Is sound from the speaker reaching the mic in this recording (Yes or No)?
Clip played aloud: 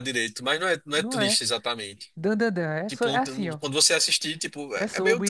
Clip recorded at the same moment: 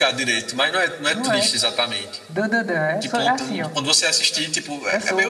Yes